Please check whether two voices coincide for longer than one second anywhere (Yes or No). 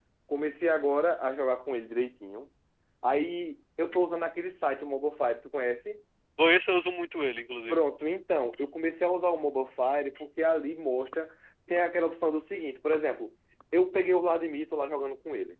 No